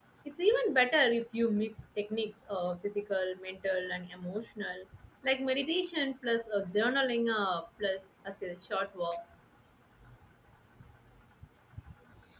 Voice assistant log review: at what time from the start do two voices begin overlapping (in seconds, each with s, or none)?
none